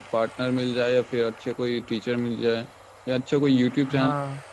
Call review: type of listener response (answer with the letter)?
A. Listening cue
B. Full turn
A